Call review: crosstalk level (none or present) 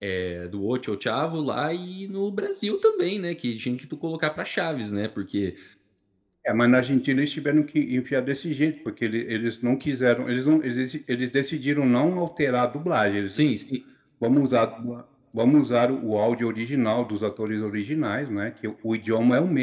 none